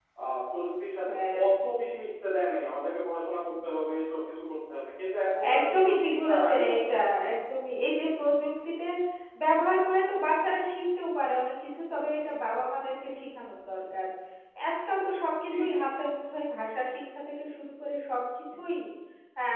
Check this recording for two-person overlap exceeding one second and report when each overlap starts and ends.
5.6-7.0

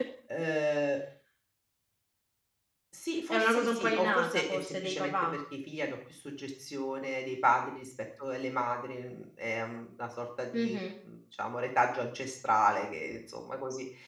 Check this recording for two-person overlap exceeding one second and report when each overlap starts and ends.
3.3-5.1

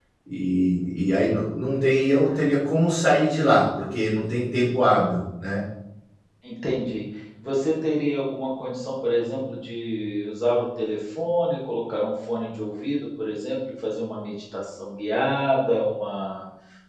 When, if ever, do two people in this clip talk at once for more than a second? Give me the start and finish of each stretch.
none

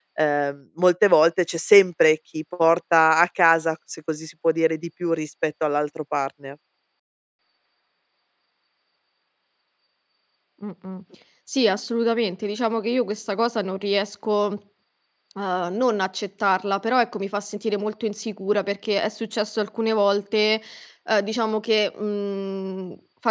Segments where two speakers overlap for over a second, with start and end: none

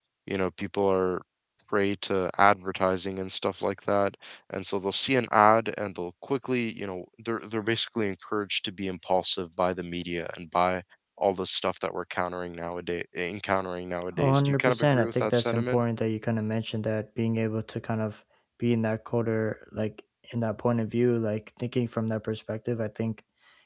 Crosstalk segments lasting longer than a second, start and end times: 14.2-15.8

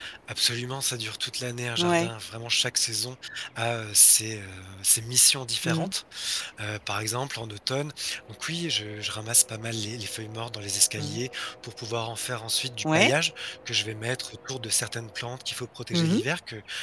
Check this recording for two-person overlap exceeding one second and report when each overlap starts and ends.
none

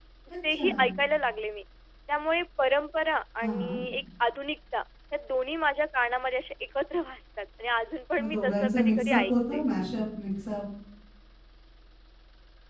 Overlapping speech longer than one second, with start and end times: 8.2-9.7

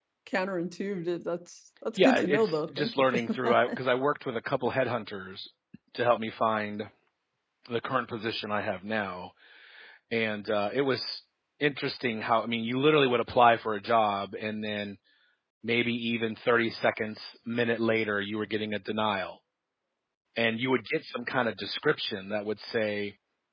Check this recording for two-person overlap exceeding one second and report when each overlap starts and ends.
2.0-3.8

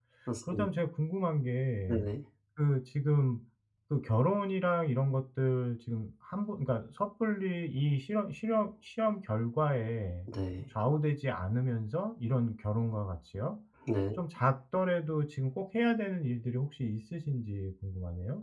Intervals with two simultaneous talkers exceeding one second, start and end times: none

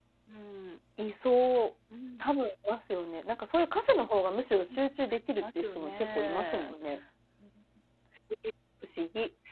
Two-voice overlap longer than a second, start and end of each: 5.3-6.7

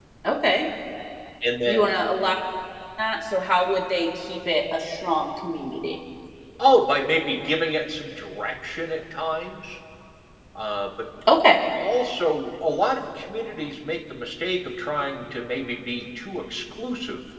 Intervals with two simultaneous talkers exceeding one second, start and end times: none

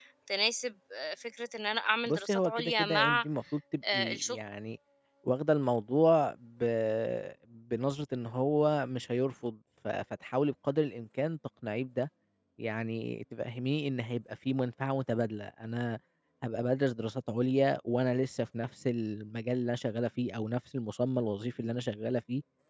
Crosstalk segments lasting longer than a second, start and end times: 2.0-3.2

